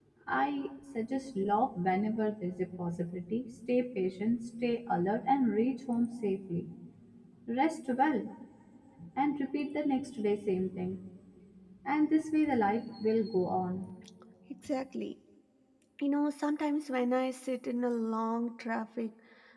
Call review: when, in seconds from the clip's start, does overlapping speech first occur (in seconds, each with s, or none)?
none